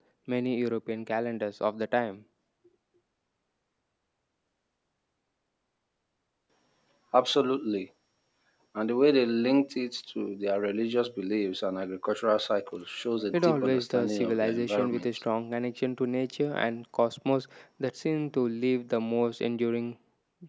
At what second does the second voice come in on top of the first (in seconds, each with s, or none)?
13.3 s